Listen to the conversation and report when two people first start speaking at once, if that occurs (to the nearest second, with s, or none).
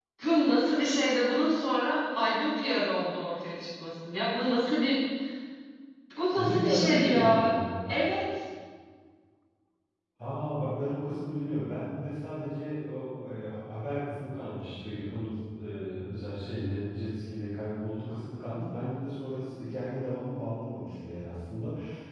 6 s